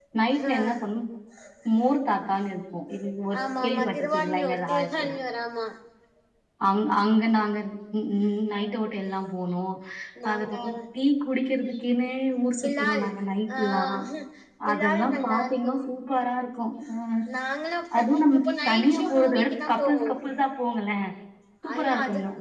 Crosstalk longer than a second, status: present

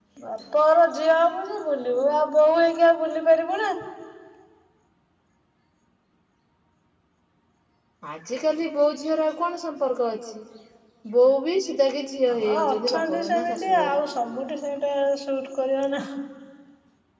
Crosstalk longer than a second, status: present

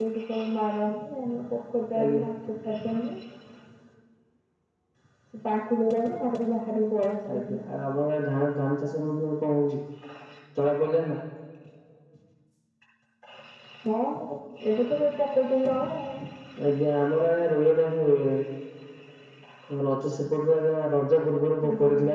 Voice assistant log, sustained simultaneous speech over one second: none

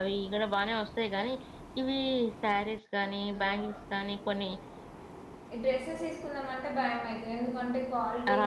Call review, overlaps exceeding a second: none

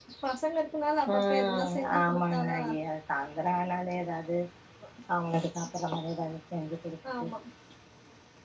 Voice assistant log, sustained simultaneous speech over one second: present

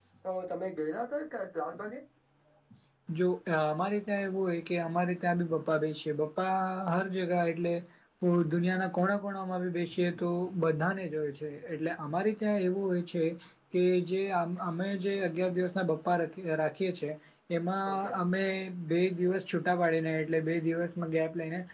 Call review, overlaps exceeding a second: none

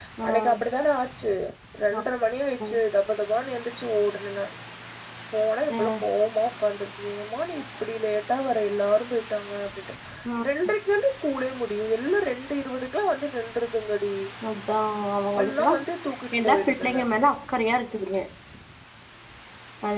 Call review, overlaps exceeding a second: none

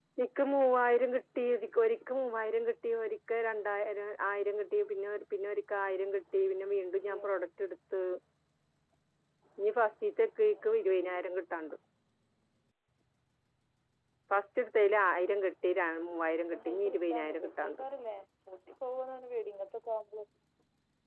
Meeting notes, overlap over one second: present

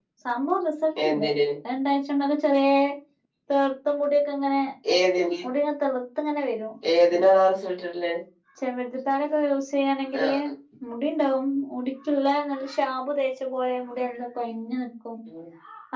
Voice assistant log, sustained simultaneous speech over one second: none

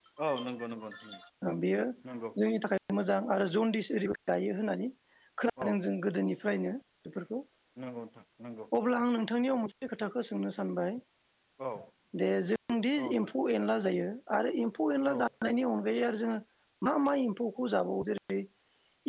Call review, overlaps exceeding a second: none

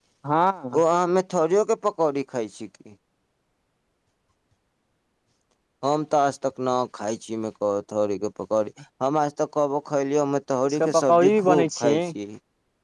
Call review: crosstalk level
present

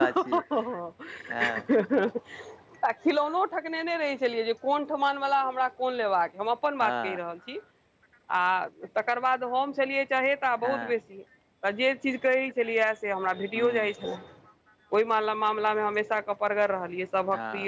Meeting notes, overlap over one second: none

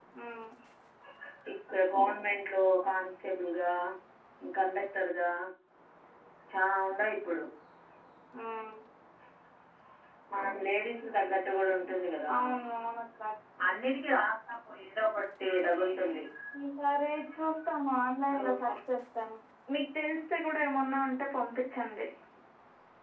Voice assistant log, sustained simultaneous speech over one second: none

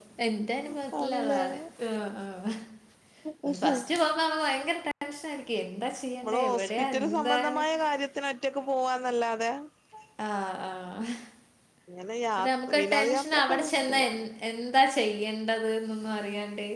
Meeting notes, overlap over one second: present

